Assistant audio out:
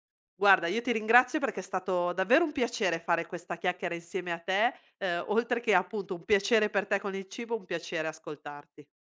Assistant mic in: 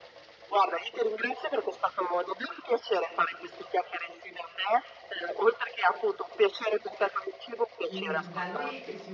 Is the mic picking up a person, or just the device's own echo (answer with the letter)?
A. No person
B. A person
B